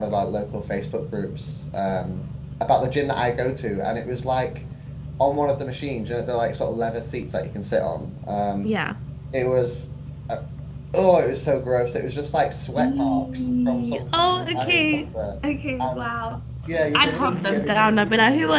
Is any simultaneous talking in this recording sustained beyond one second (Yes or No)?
Yes